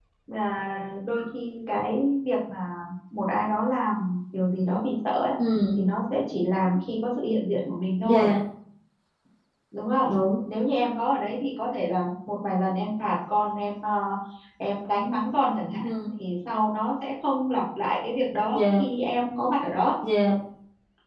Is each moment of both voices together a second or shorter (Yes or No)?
Yes